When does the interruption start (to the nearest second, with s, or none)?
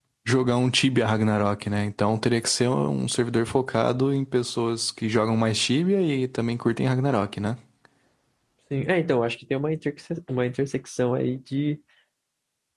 none